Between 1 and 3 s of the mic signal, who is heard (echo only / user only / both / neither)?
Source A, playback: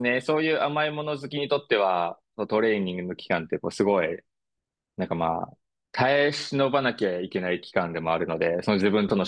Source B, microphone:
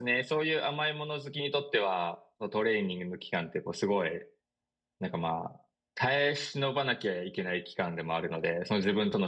echo only